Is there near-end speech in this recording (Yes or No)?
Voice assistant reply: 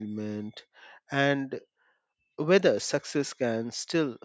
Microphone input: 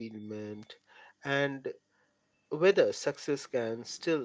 No